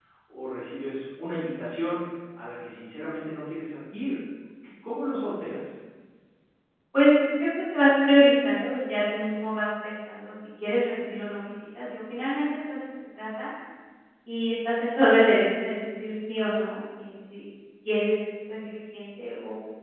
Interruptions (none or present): none